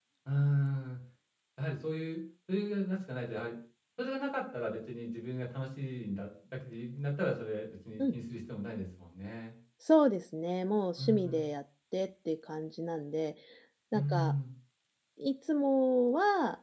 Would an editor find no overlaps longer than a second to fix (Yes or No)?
Yes